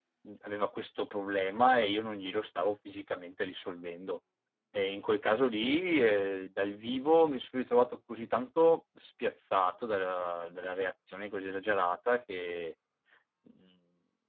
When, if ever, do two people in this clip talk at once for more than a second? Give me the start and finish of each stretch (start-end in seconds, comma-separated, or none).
none